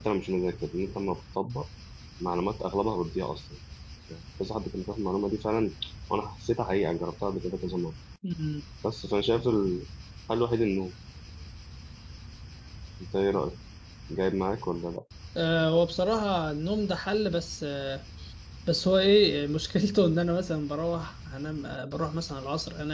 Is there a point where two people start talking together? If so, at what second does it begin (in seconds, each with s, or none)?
none